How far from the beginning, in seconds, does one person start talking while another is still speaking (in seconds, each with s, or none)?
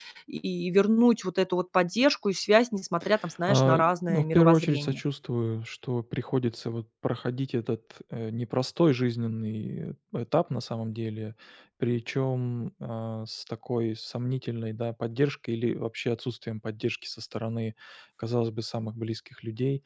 3.5 s